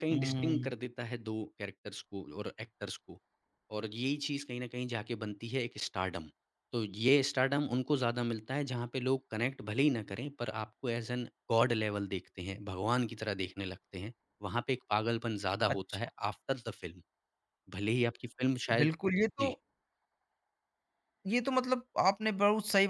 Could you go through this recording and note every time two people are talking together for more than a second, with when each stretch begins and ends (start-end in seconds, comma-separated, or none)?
none